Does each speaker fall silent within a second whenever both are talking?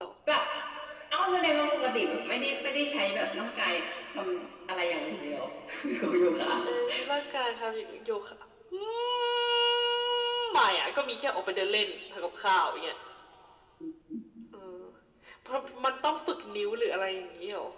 Yes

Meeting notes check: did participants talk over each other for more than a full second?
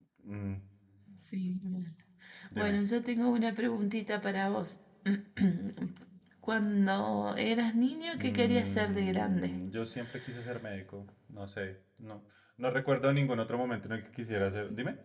Yes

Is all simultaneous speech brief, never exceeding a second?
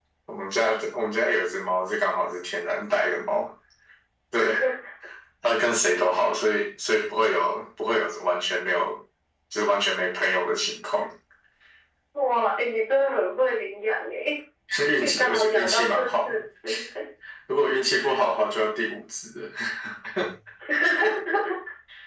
No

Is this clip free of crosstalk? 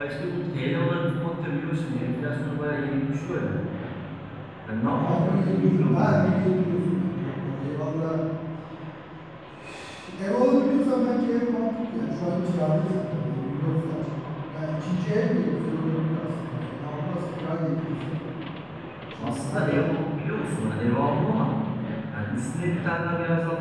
No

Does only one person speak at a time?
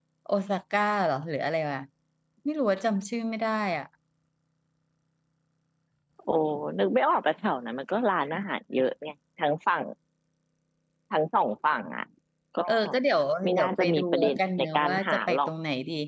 No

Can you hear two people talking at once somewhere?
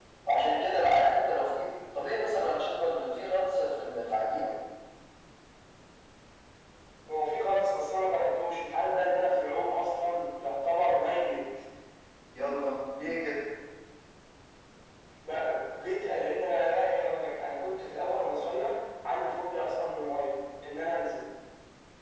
No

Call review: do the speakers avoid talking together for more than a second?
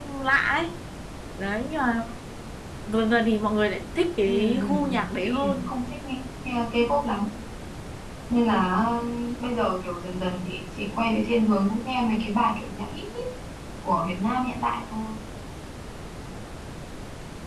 No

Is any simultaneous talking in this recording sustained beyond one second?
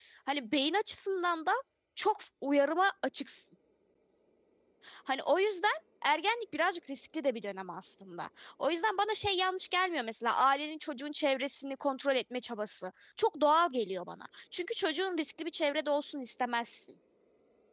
No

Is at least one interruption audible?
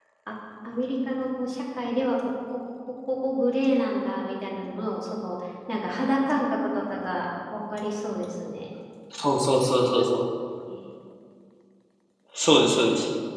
No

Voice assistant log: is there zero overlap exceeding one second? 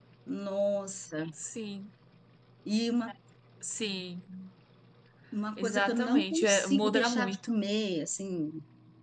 No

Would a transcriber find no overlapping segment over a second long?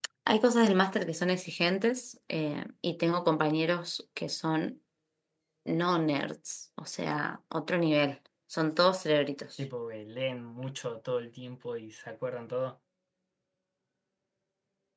Yes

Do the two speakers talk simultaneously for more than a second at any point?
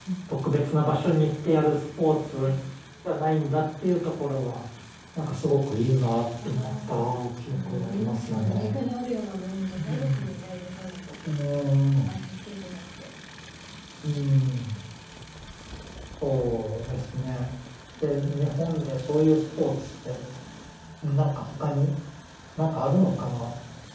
Yes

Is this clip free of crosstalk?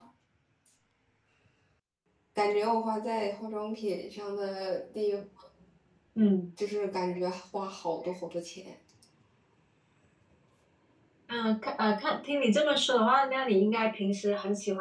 Yes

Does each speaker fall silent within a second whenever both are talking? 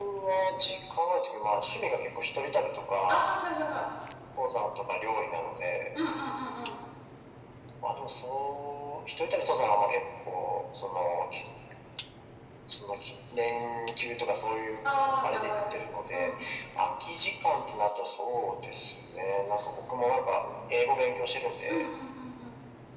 Yes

